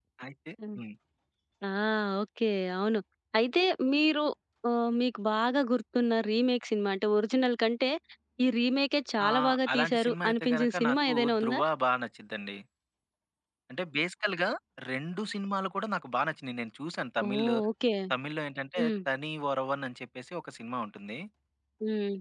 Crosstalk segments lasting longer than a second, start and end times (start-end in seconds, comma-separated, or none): 9.3-11.6